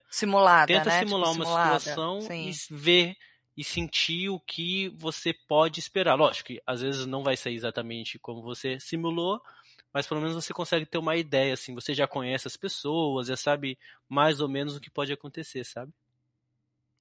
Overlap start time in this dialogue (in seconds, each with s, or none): 0.7 s